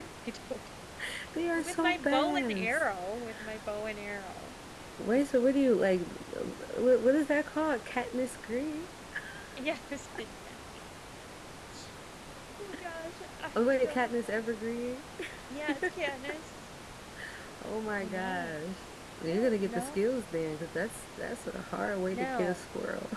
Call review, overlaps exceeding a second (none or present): present